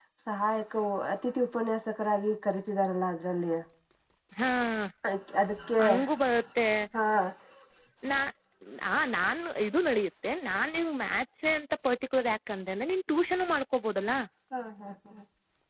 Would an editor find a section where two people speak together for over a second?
No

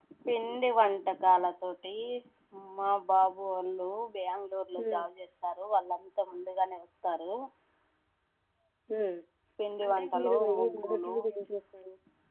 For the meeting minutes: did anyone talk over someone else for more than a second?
Yes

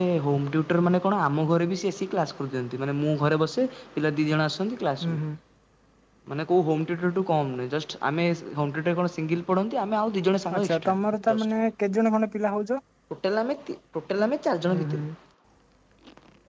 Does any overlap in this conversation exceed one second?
No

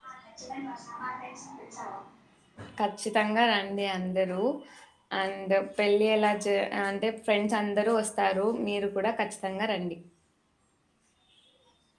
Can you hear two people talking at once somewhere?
No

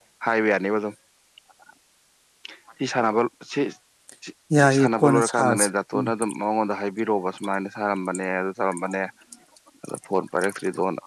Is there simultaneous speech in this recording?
Yes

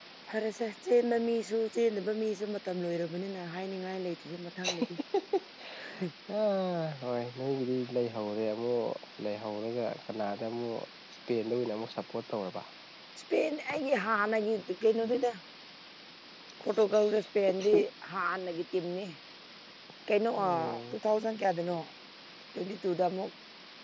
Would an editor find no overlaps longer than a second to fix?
Yes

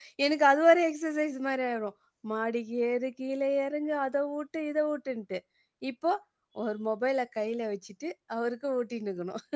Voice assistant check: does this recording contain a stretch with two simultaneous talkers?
No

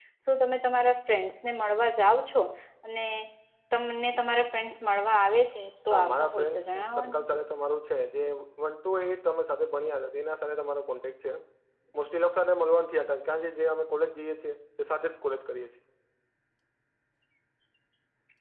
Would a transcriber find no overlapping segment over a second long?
No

